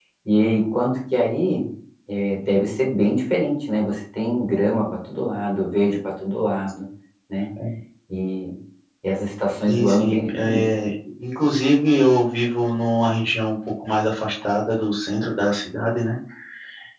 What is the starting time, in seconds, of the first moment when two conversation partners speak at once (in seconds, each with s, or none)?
9.7 s